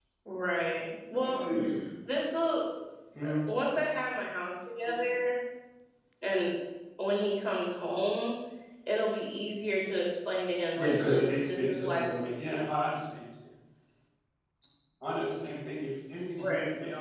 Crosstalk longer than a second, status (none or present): present